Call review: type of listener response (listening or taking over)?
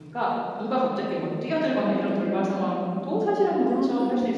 listening